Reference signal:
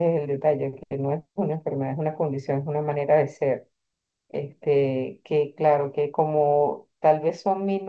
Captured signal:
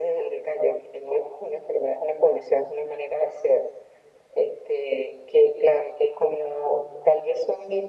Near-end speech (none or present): none